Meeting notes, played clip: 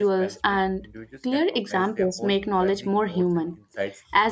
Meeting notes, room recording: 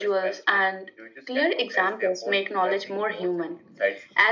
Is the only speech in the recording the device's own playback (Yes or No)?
Yes